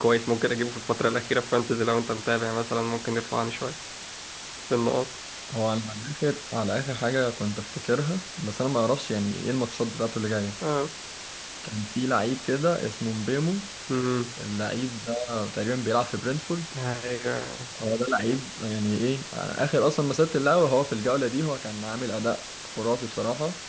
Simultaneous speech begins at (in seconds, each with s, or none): none